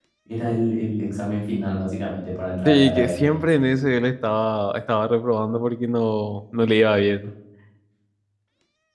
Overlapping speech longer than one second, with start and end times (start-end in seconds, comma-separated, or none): 2.6-3.9